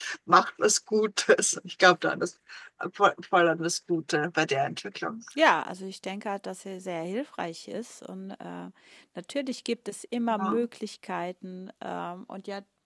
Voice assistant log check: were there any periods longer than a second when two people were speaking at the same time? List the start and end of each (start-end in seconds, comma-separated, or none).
none